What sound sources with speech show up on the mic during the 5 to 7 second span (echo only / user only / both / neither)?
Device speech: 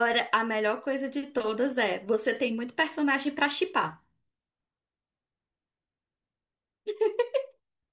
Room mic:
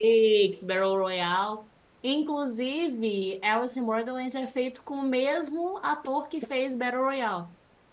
user only